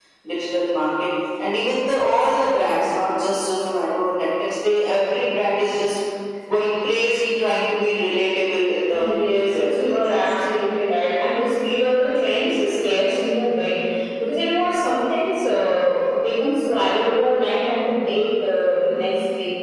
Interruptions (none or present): present